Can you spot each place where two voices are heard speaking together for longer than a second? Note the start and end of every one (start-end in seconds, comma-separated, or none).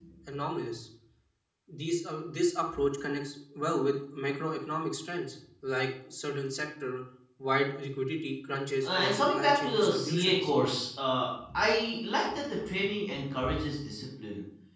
8.8-10.5